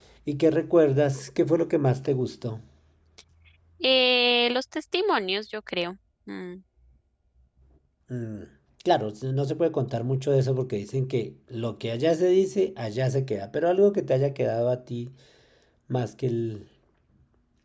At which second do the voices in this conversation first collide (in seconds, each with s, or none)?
none